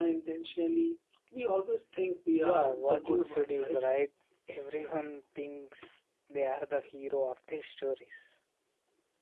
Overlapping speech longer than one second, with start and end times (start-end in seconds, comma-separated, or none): 2.4-3.8